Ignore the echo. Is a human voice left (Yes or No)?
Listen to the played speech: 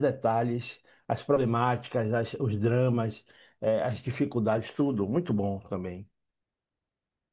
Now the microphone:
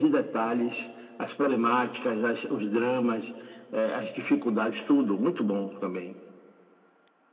No